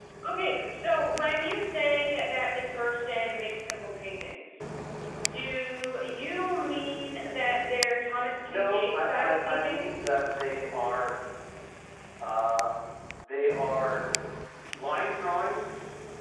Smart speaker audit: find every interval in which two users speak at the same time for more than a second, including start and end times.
8.5-10.1

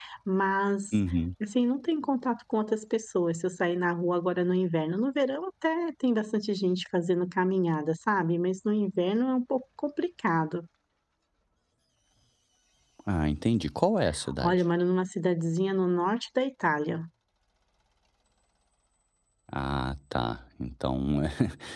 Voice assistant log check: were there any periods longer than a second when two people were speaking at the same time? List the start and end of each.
none

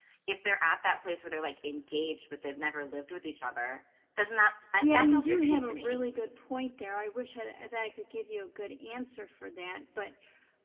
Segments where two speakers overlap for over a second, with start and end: 4.8-6.0

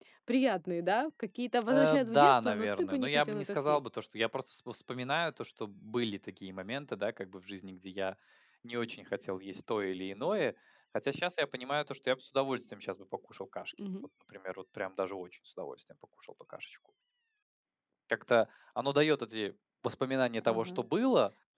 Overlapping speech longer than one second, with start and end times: 1.7-3.8

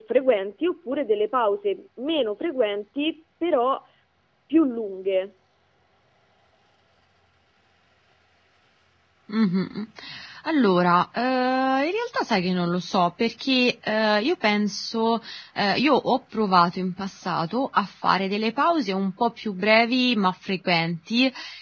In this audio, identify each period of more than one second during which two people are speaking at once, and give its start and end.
none

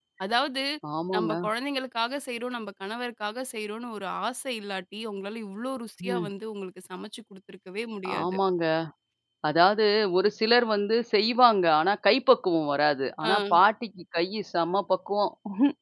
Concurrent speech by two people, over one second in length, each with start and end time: none

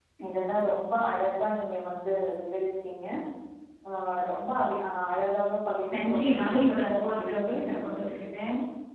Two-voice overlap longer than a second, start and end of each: 5.9-8.1

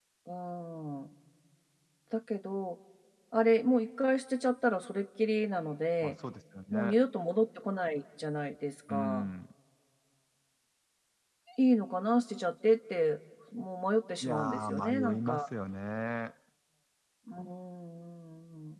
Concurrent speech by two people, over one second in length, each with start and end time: 14.2-15.5

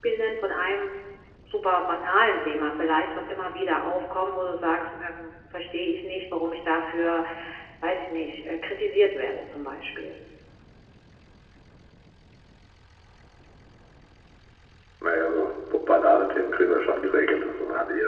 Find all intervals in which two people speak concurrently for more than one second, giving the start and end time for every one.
none

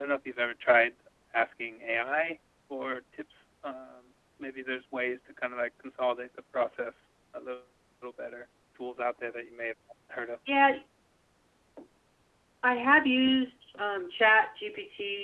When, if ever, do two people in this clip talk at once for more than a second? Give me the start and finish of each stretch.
none

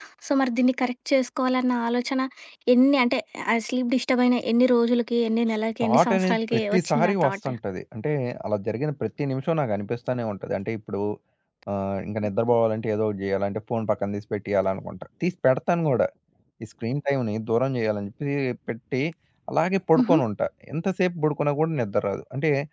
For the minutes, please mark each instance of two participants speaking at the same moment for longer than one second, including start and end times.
5.8-7.5

